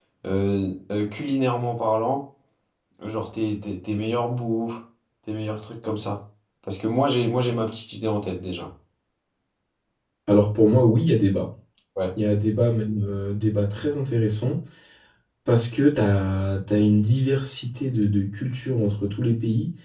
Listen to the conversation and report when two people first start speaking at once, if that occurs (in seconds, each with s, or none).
none